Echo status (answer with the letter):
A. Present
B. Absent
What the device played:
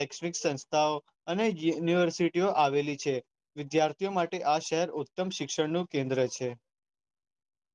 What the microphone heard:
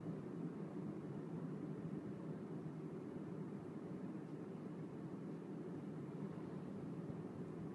B